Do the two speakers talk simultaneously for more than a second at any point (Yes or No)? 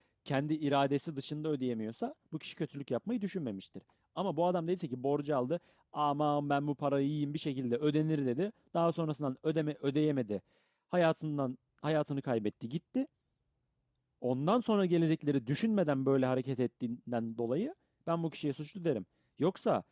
No